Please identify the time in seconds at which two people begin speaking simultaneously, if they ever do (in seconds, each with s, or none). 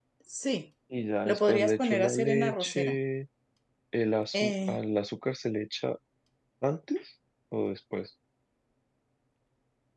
1.2 s